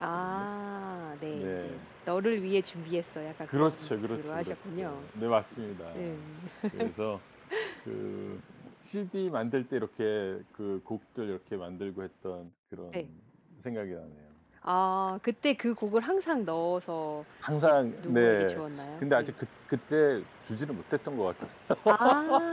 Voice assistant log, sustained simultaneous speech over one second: present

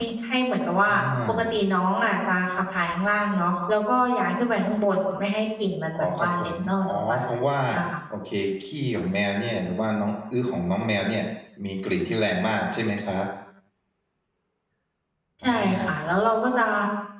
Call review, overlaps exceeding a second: present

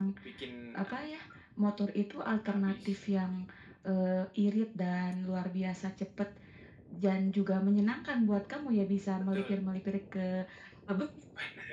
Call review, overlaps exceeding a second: none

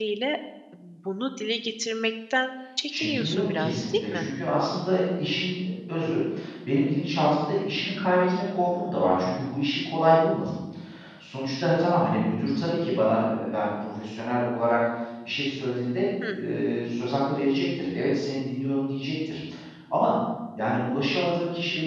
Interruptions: present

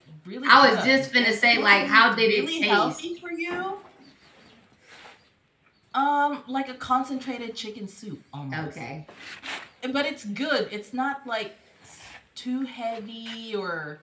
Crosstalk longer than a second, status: present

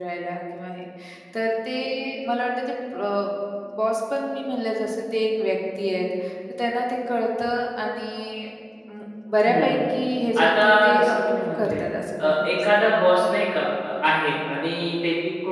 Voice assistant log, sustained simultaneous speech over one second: present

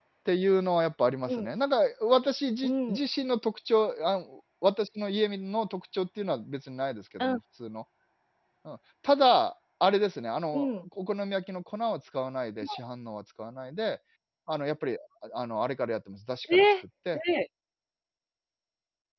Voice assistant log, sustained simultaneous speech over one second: none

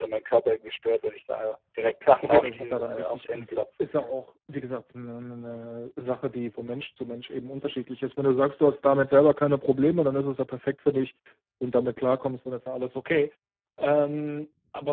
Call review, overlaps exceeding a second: present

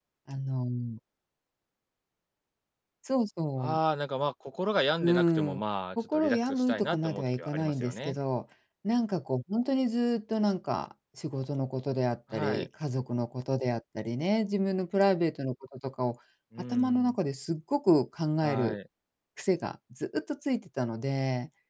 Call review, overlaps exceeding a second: present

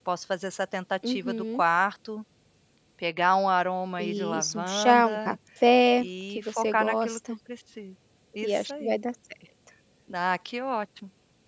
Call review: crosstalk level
present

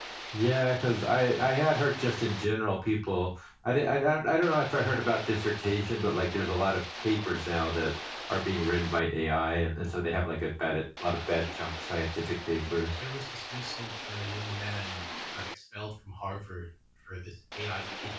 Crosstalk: none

